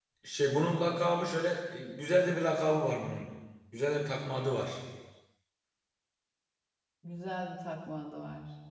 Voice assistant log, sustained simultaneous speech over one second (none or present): none